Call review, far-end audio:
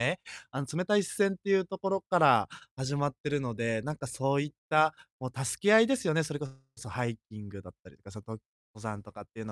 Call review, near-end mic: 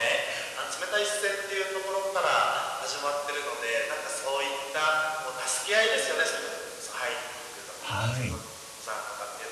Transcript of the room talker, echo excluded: はい。

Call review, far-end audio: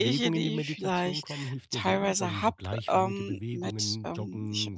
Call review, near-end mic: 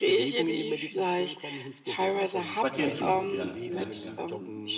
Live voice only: Spazieren tut's, ja, ja, ja.

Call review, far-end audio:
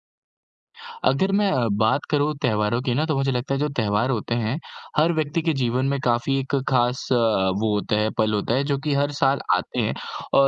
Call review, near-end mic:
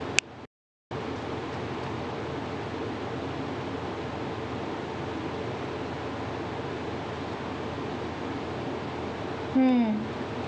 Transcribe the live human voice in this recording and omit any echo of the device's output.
हुँ।

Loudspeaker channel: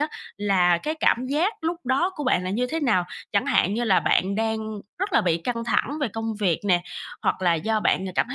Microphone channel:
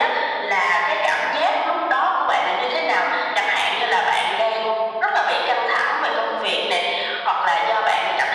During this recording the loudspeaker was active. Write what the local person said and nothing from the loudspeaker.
none

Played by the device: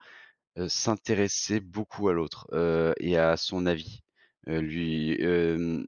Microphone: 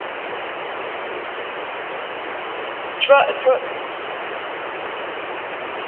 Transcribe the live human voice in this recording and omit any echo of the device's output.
tu vois, heu, tu vois

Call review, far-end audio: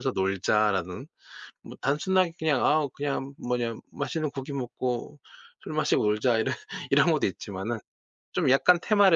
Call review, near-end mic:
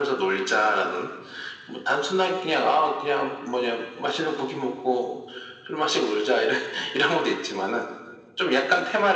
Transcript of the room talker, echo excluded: none

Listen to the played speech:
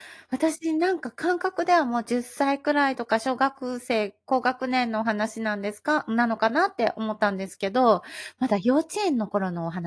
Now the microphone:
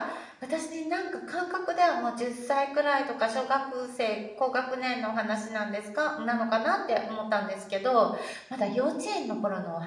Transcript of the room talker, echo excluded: none

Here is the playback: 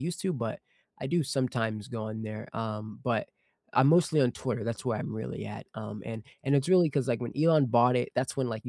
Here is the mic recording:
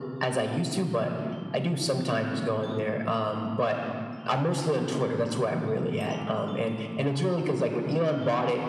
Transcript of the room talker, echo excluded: none

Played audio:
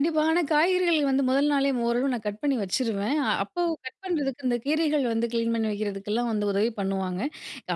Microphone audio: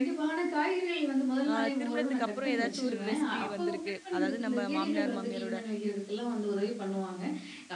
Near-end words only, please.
அ திருமணத்துக்கு அப்புறம் ஏதாச்சும் ஒரு ரெசிபி வந்திருக்கு. அதாவது நம்ம மாமினியார், மாமியாரோட

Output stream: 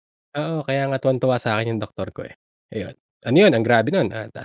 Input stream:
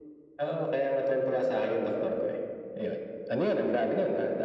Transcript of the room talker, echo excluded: none

